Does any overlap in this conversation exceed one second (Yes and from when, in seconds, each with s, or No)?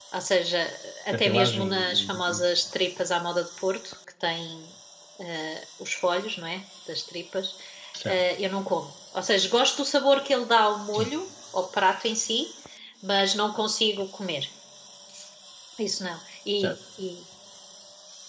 Yes, from 1.1 s